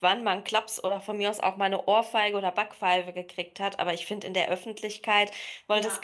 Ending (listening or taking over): listening